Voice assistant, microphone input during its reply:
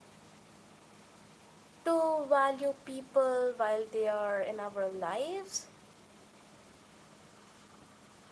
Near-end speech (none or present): present